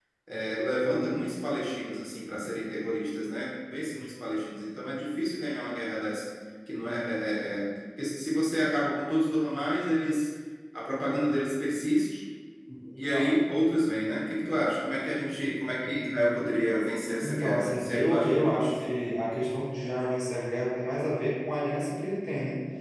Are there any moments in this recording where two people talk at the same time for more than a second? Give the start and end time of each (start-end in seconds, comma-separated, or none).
17.2-18.9